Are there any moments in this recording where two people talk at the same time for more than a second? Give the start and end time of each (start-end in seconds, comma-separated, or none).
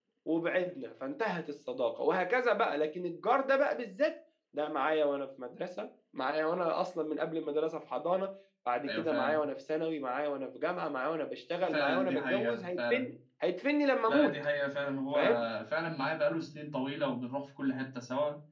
11.6-13.1